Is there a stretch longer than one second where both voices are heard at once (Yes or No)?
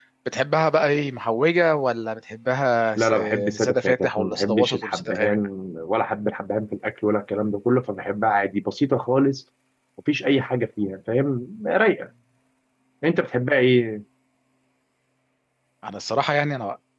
Yes